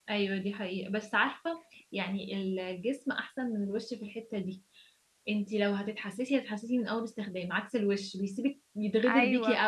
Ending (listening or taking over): taking over